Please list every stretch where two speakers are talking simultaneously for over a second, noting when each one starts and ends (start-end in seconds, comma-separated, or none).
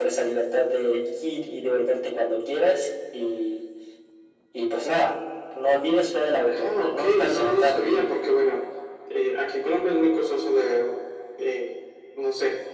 6.5-8.1